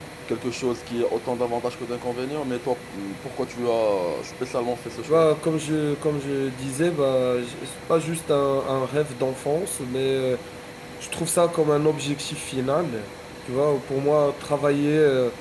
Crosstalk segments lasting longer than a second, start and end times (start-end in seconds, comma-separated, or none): none